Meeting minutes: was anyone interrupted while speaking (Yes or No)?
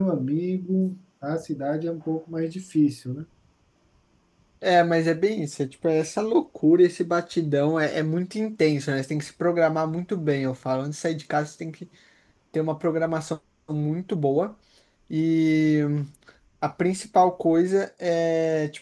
No